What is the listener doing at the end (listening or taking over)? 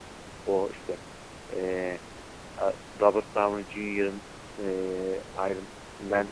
listening